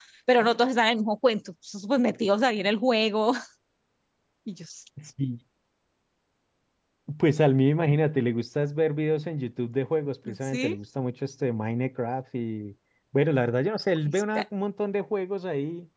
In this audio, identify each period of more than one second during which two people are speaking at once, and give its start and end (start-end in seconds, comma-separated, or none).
none